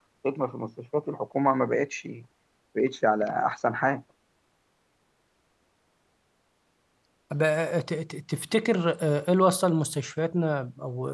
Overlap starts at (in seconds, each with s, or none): none